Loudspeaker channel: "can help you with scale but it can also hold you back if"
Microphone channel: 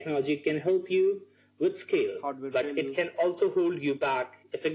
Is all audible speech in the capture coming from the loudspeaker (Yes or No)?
No